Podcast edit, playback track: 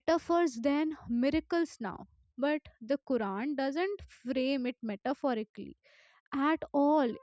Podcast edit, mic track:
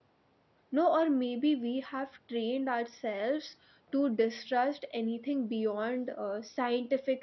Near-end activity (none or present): present